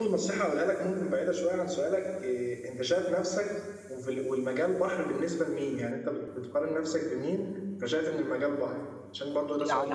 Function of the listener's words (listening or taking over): taking over